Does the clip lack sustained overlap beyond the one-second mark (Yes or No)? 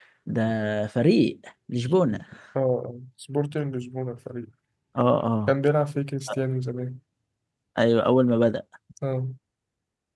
Yes